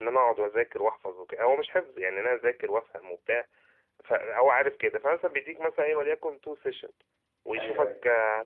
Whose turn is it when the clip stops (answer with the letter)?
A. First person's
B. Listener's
A